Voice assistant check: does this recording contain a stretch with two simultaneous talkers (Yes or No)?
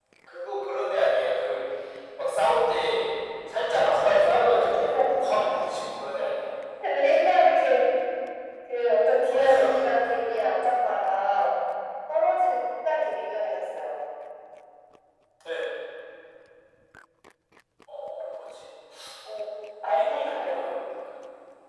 Yes